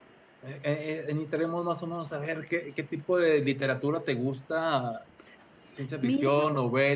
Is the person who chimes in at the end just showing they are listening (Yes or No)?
Yes